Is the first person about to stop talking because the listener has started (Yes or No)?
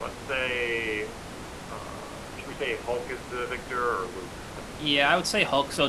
Yes